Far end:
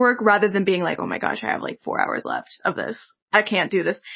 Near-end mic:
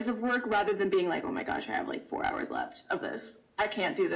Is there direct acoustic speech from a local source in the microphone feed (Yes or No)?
No